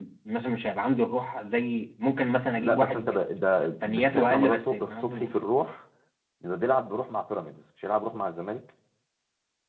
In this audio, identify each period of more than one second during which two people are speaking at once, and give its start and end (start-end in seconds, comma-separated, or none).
3.8-5.3